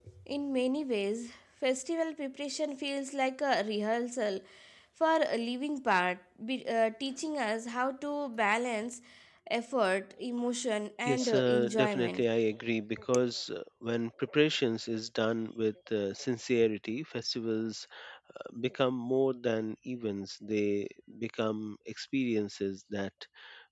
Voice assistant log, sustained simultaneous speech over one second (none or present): present